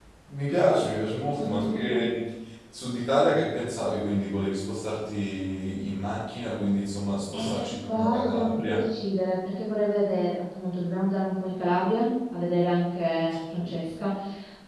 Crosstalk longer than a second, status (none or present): present